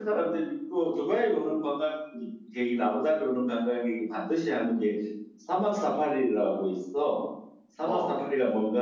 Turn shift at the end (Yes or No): No